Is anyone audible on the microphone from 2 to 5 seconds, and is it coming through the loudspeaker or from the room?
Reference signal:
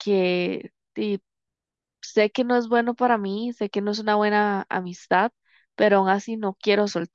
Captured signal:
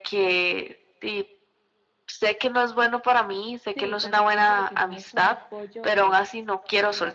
both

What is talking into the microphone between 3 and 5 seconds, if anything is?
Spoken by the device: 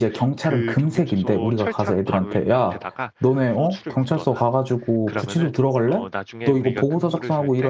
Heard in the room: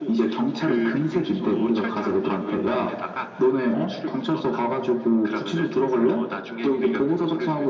echo only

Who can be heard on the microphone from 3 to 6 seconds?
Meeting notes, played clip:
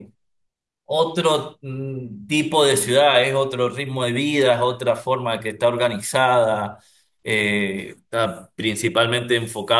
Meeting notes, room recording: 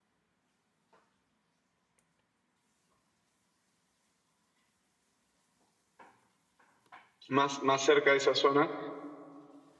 neither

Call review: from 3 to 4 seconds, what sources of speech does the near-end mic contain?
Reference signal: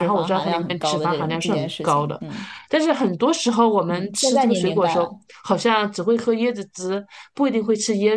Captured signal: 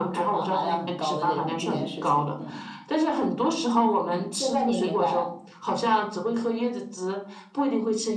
echo only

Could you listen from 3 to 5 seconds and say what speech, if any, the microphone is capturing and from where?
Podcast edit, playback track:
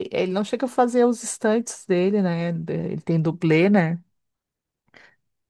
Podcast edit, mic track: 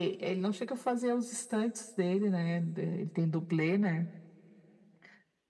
echo only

